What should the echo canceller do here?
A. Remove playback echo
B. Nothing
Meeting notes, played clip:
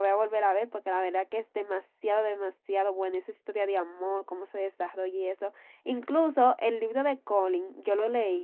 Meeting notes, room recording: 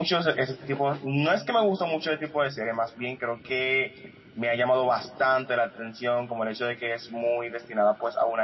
B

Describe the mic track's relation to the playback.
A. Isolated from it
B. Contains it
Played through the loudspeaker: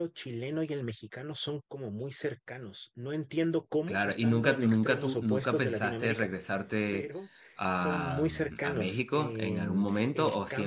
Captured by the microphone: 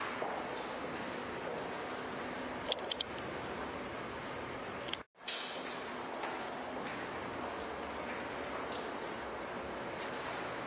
A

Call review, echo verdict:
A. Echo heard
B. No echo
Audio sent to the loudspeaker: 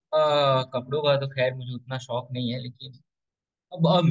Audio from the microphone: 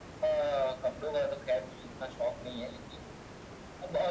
A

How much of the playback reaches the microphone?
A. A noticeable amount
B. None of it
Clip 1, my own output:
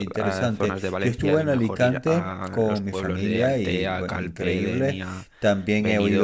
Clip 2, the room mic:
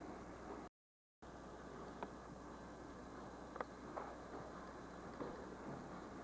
B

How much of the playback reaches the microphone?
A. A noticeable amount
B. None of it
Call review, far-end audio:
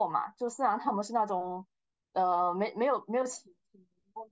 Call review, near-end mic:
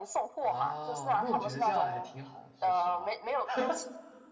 A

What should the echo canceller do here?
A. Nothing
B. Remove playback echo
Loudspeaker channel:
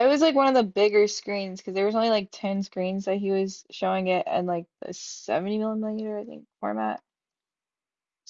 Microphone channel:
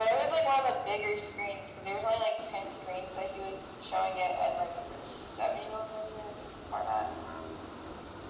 B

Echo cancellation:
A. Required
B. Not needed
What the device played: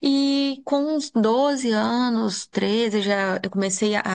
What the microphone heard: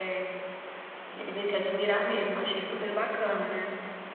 B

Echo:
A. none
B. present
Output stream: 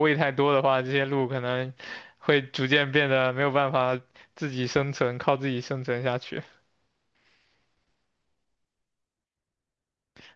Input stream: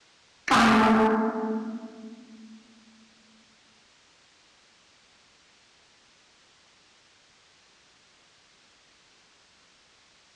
A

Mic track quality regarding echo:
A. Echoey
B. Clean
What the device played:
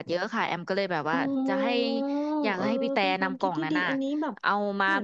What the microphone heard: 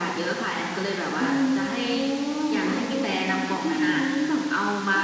A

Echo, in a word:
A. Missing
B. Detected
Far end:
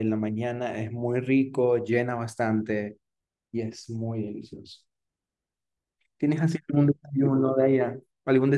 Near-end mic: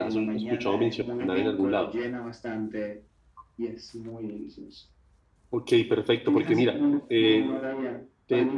B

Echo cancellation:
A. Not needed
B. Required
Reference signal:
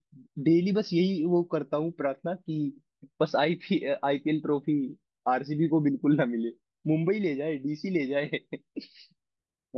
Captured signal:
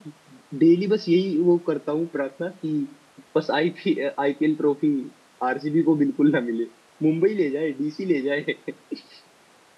B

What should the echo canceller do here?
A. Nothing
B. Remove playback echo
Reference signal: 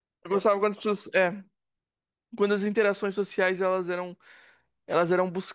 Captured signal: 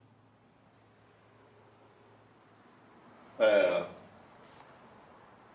A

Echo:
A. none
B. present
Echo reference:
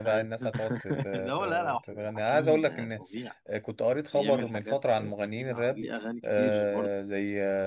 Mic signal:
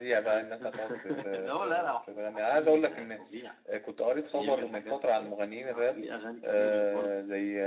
B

